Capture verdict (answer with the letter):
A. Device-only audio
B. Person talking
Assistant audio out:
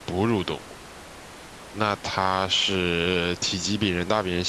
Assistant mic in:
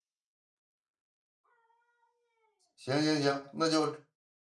B